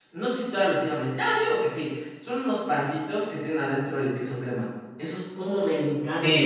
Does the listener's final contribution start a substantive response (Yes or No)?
Yes